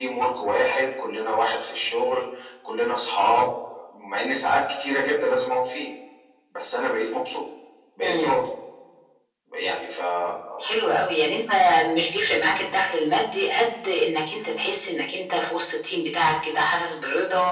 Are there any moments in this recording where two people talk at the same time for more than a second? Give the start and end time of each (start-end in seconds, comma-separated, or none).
none